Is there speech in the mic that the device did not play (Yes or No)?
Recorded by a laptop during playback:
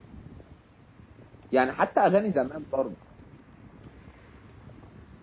Yes